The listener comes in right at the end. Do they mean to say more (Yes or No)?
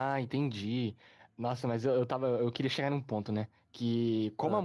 No